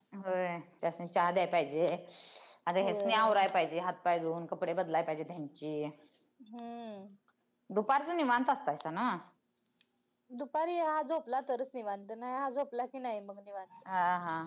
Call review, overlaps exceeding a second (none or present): none